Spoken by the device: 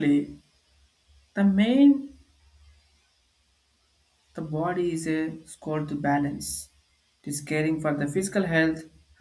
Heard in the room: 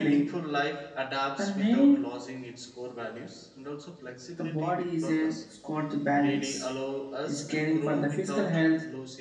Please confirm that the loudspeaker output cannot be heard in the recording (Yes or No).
No